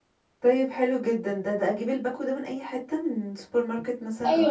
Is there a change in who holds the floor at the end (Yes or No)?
Yes